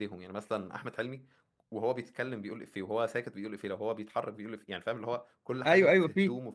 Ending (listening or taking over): taking over